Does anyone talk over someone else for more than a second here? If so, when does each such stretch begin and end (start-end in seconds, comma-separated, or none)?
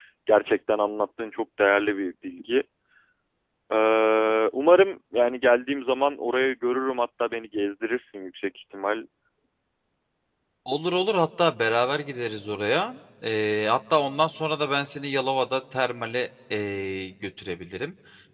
none